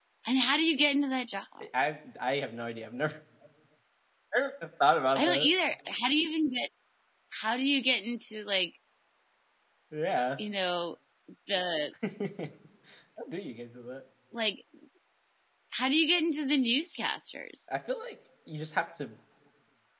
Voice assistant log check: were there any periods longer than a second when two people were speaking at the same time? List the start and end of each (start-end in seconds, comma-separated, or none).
none